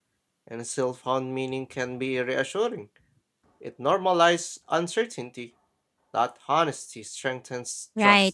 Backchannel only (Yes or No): No